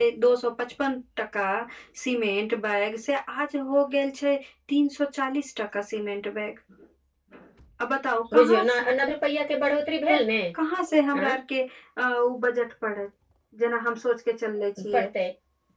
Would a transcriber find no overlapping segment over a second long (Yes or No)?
Yes